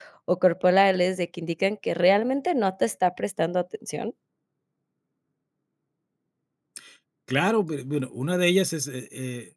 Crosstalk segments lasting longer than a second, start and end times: none

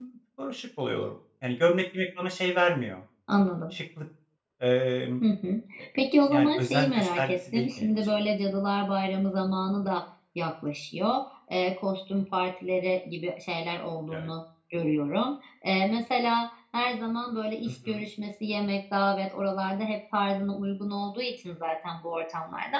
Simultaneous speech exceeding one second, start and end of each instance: 6.3-8.1

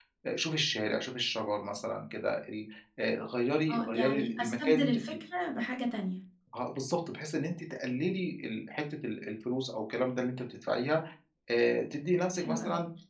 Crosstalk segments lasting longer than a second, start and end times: 3.7-5.1

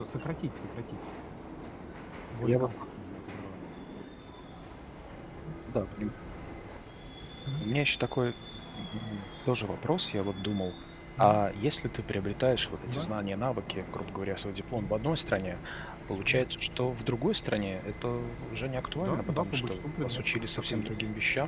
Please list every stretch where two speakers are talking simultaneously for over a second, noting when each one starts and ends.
19.0-20.9

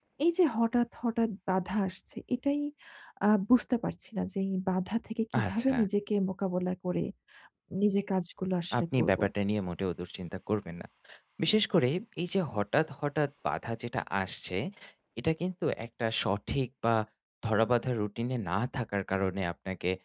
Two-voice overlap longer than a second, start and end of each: none

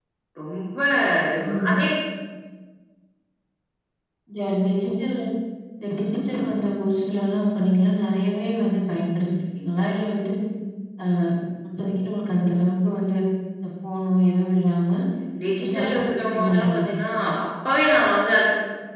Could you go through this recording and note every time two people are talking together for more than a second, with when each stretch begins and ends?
15.6-16.8

